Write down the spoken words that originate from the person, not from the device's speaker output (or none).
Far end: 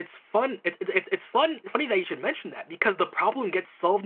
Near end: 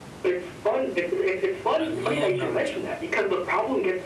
I love Naruto.